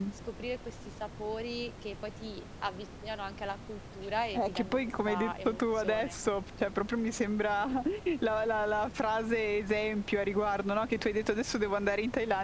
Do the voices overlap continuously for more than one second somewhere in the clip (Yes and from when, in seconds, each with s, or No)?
Yes, from 4.3 s